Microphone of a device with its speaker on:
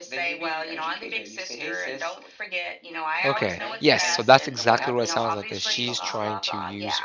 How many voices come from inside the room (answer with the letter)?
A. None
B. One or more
B